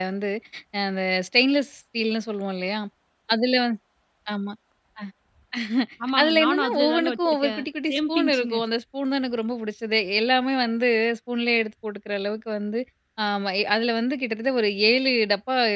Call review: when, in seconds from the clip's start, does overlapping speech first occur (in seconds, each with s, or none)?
6.2 s